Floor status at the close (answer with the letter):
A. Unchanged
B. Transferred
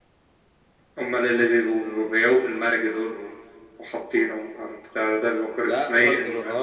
B